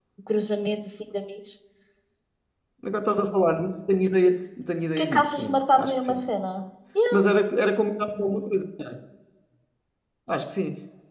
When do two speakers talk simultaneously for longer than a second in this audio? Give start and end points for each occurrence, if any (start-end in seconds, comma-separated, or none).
5.0-6.2